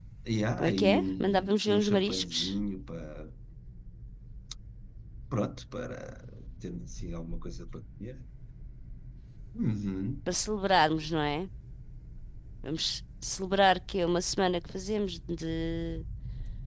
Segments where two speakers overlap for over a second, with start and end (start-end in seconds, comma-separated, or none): 0.6-2.4